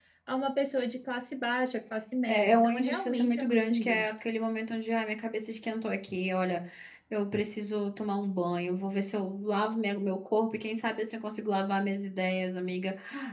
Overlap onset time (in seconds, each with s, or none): 2.3 s